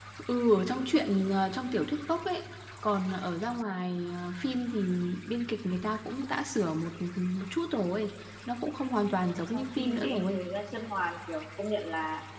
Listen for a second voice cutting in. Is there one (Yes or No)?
Yes